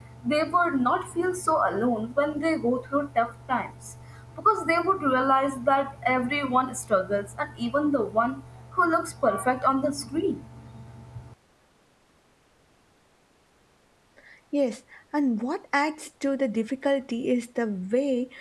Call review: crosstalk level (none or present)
none